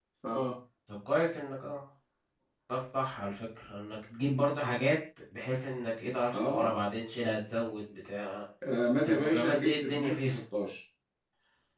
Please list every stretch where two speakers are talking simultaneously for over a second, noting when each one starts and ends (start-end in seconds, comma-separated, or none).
9.0-10.3